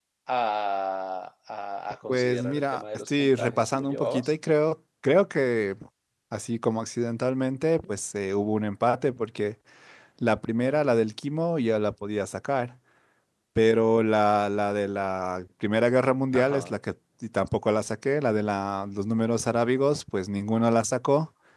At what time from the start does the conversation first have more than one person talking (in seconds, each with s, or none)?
2.1 s